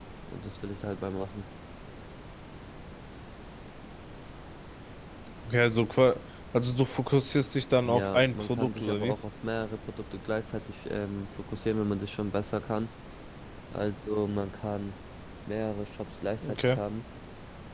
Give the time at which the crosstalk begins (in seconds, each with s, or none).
7.8 s